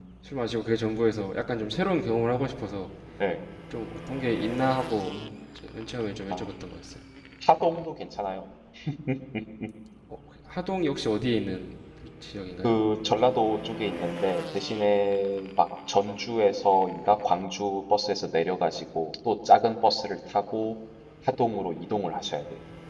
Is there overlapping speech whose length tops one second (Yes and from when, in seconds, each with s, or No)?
No